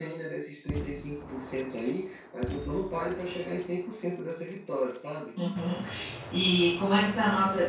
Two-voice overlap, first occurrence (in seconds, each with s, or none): none